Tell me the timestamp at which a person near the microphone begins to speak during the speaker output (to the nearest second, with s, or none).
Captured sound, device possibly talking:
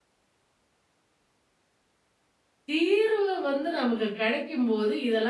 3 s